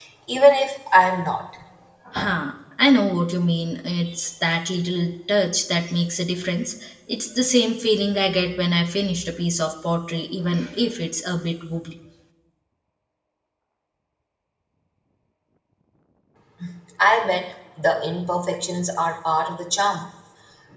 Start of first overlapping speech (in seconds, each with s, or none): none